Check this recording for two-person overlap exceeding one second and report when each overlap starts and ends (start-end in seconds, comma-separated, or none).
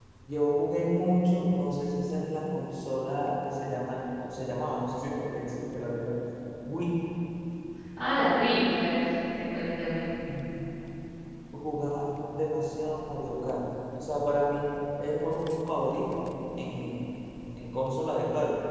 none